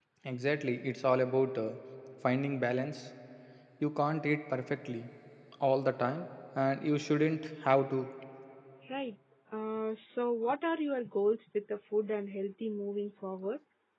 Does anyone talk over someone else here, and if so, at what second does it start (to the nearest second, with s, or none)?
none